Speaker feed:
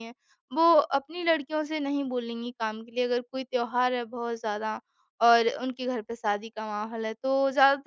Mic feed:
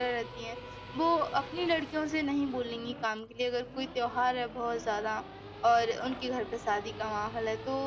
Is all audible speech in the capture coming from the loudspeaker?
Yes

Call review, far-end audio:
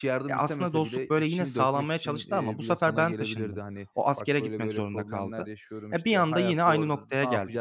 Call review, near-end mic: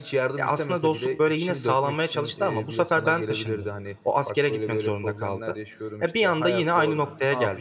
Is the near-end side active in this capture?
No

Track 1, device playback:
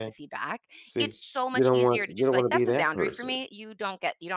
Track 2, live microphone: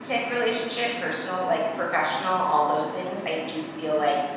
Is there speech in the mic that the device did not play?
Yes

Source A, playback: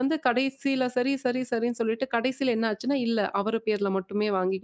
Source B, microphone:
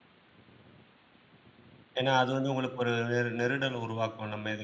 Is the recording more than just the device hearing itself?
Yes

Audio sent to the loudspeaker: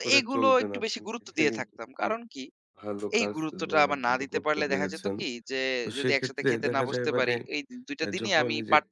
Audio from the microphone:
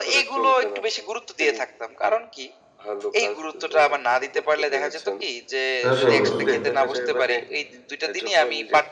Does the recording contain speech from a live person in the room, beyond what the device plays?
Yes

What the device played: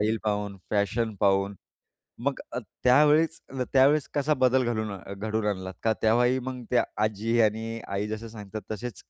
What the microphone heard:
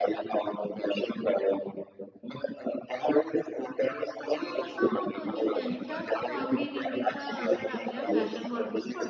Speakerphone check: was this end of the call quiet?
No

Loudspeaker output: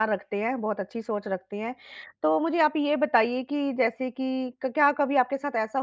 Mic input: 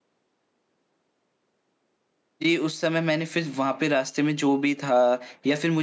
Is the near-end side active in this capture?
Yes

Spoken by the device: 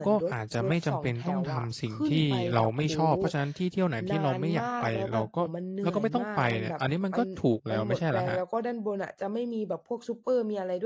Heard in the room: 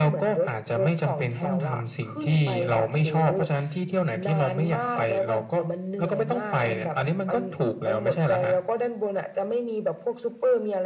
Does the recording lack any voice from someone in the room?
Yes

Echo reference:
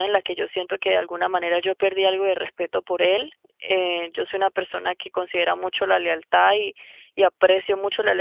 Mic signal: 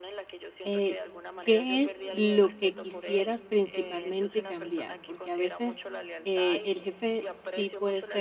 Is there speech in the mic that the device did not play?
Yes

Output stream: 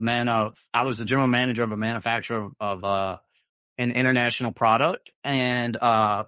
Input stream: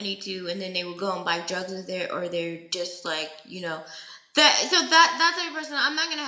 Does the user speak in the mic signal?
Yes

